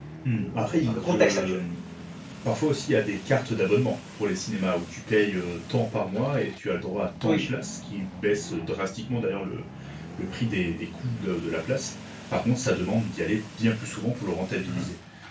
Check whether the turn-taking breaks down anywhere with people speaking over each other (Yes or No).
Yes